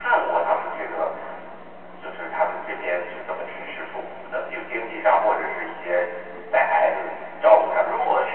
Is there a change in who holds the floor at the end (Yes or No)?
Yes